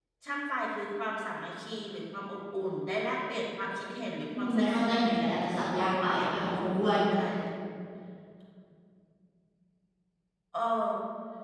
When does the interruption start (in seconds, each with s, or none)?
4.3 s